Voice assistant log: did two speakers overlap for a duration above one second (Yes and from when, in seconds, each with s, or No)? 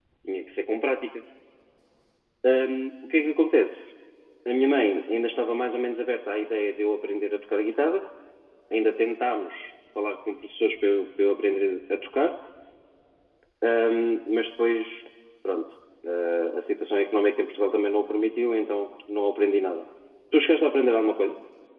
No